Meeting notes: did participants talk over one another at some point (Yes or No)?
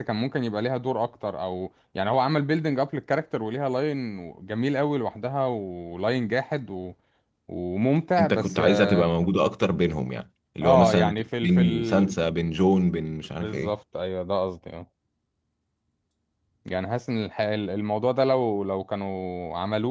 Yes